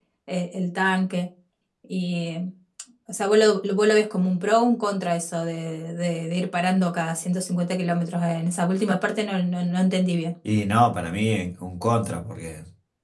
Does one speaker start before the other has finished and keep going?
No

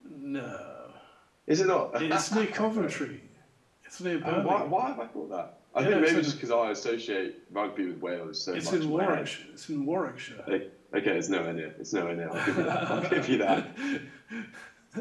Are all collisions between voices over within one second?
No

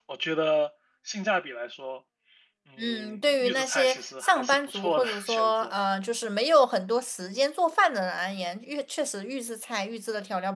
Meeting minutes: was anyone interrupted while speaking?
Yes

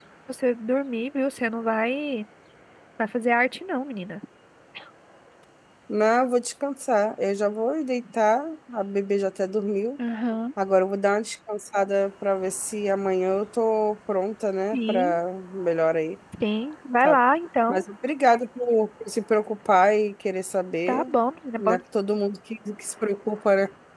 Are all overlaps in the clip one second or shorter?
Yes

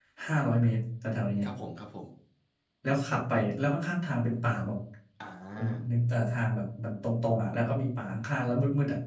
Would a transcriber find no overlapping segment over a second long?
Yes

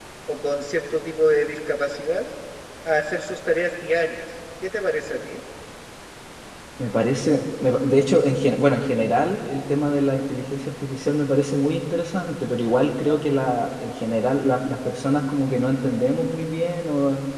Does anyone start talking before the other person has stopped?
No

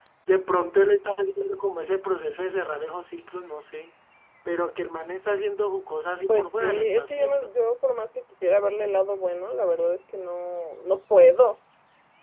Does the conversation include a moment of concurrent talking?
Yes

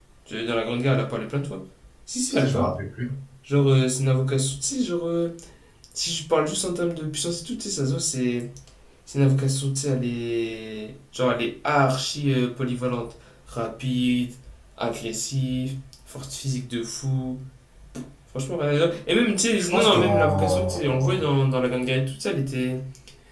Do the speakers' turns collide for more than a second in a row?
Yes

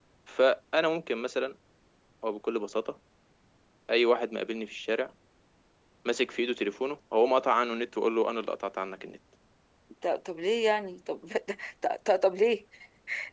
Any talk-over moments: No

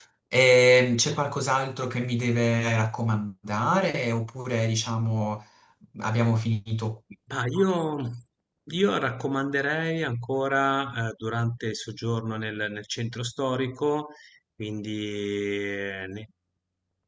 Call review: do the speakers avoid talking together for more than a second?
Yes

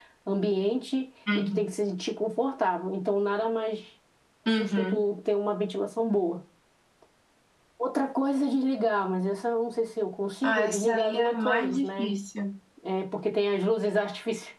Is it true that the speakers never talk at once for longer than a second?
No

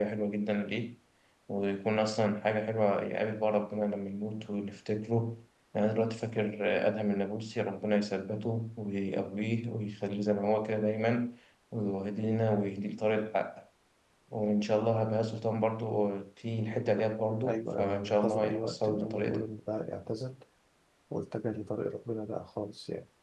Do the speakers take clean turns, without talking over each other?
No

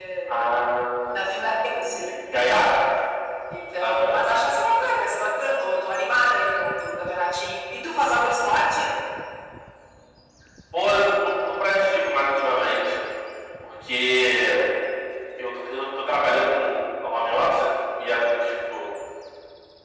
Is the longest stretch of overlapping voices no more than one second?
Yes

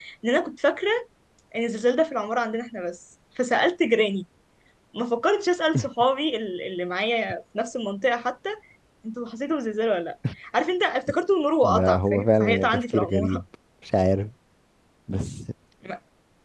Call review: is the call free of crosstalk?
No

